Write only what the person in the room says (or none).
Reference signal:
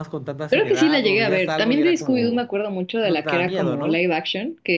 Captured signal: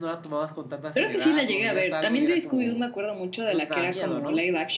none